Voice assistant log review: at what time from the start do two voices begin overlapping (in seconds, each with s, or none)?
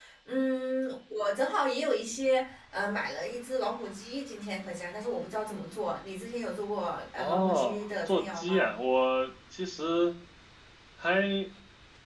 7.2 s